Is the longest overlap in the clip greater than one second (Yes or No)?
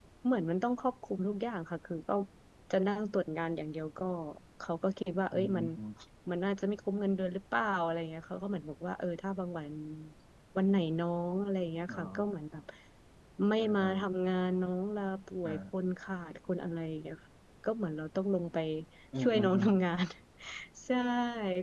No